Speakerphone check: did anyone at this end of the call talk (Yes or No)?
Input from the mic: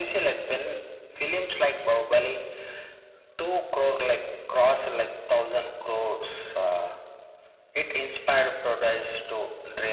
No